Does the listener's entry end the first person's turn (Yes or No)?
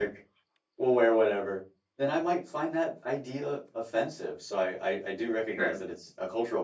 No